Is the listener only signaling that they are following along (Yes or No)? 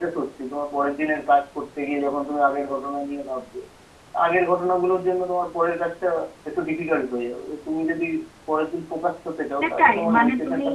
No